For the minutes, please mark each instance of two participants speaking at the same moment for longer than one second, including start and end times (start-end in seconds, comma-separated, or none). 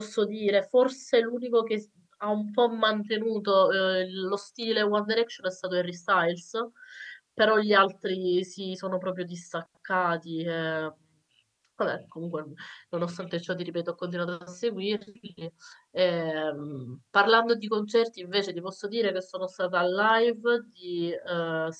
none